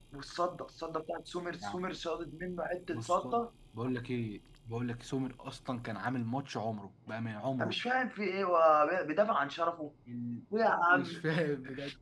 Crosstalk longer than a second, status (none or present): none